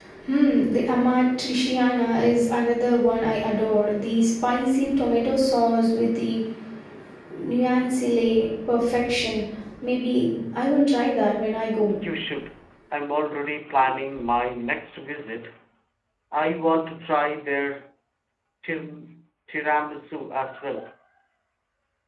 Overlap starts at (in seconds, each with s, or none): none